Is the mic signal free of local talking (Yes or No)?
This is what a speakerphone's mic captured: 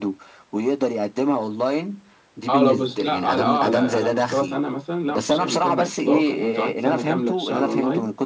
No